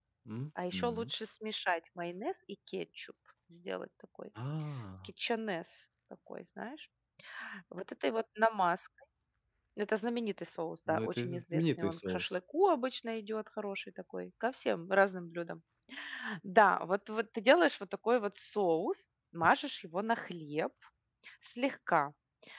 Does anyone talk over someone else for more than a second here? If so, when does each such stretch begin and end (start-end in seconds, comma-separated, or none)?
10.9-12.4